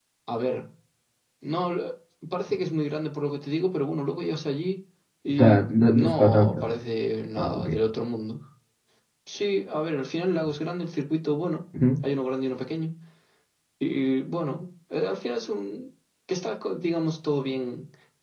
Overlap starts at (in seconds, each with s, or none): 5.4 s